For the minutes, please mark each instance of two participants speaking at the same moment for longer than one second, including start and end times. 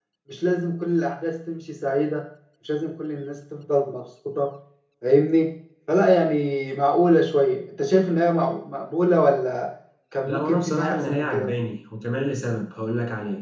10.3-11.5

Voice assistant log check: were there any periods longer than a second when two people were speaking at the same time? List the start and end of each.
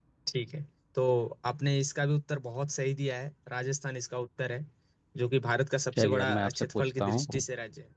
5.9-7.4

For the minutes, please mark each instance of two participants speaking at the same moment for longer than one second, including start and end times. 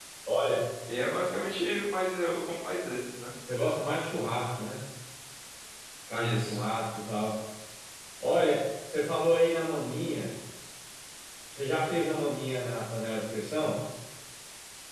none

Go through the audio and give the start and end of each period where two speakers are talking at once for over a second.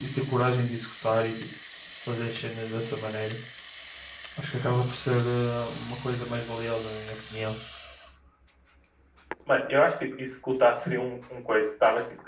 none

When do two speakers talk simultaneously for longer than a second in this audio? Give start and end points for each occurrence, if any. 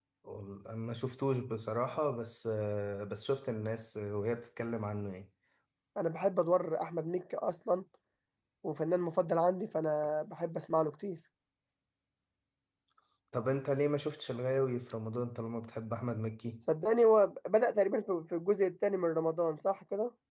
none

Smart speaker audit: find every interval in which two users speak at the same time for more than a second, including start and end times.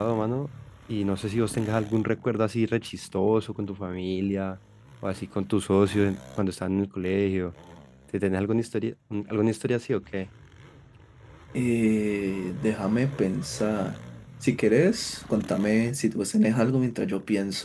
none

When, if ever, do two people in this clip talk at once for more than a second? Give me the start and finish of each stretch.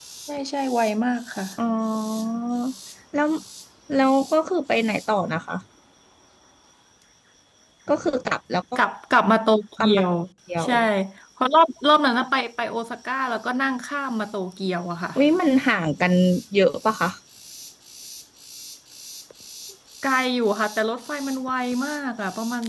none

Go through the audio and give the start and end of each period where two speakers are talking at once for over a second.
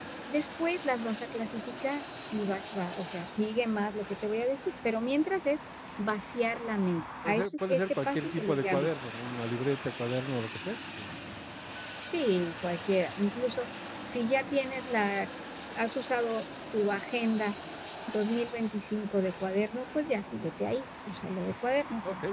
7.2-8.9

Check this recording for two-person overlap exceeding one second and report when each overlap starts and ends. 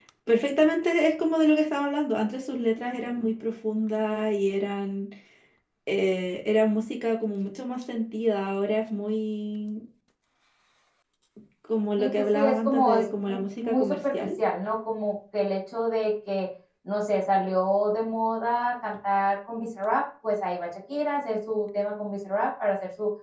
12.0-14.3

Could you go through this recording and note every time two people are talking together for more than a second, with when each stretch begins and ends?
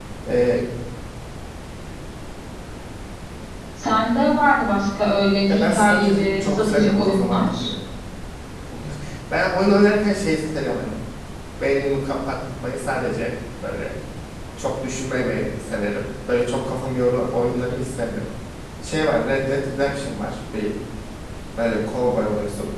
5.5-7.7

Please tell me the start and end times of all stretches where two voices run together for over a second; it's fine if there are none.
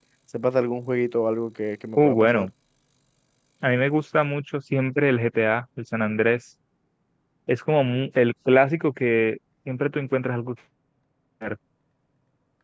none

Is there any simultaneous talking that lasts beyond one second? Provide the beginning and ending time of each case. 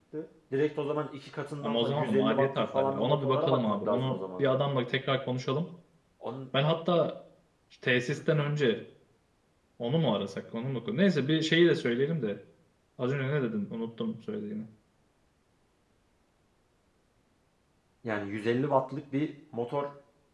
1.6-4.4

